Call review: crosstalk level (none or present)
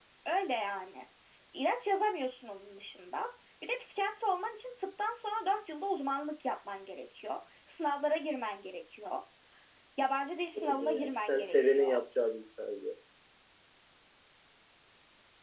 present